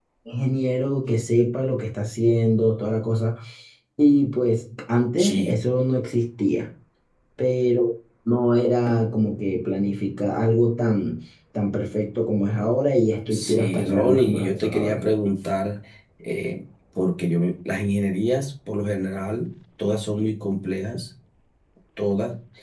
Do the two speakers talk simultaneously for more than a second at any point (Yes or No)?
Yes